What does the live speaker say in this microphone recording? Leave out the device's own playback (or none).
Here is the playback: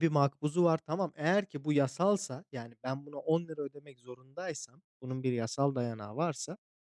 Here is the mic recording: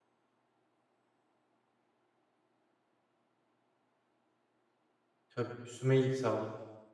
Tabii üstüme iyilik sağlık.